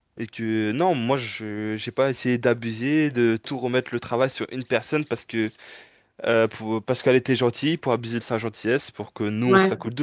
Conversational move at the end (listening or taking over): listening